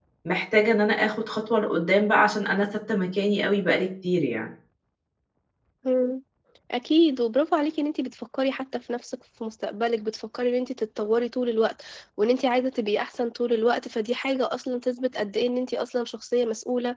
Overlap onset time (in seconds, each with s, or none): none